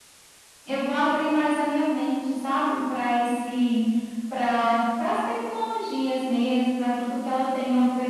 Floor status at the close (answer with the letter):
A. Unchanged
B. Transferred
A